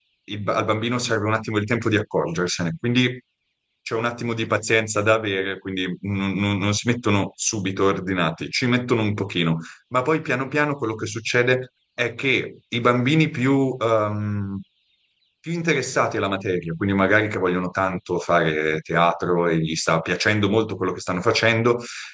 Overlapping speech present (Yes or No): No